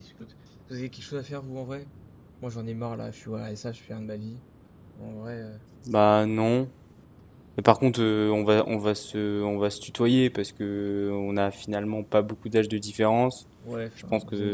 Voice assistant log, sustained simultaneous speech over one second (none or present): none